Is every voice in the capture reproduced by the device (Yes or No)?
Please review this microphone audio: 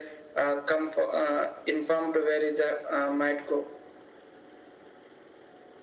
Yes